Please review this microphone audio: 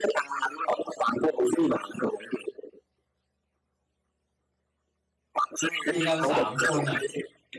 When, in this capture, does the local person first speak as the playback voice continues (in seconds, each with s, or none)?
5.9 s